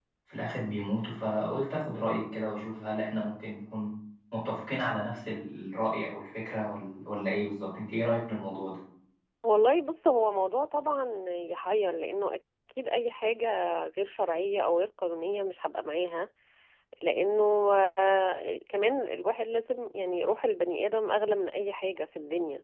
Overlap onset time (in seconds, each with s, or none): none